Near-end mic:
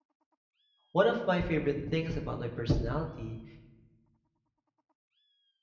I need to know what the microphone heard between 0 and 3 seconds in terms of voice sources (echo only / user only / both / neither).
user only